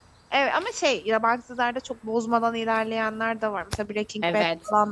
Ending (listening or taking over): taking over